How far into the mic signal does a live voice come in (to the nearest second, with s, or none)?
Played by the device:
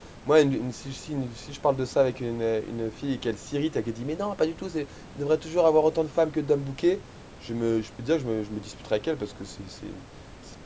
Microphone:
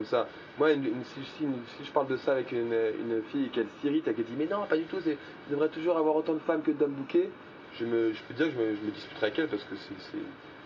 none